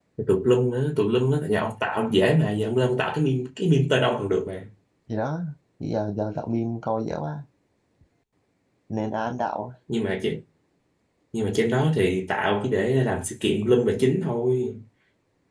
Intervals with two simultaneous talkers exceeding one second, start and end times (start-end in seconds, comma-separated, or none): none